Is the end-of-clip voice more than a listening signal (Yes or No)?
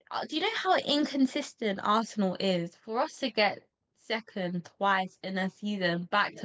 Yes